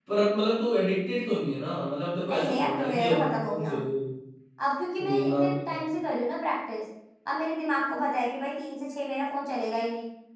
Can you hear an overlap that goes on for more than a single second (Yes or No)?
Yes